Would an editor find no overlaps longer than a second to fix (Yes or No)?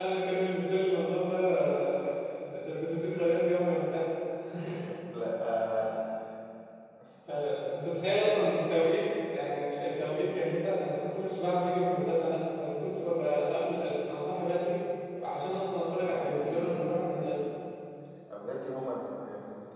No